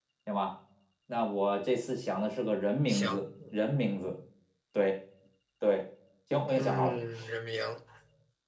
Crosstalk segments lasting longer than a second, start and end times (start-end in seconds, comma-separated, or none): none